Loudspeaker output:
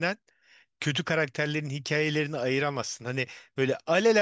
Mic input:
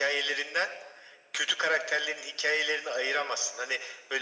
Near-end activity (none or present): none